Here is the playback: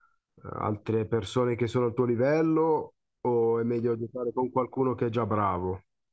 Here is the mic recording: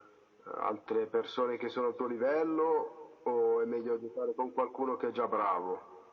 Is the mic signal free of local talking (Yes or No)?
Yes